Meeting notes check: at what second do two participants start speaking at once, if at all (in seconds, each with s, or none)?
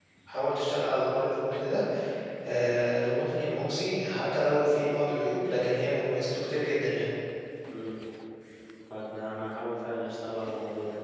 none